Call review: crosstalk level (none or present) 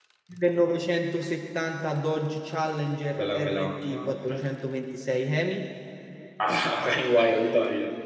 present